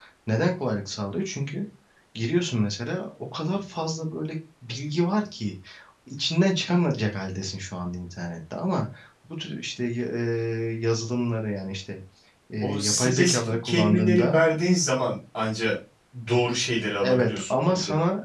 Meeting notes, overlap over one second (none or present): present